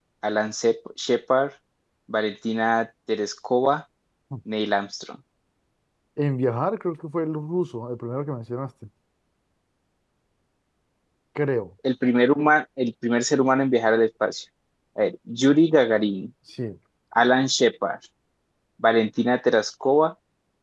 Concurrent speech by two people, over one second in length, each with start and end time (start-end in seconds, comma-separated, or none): none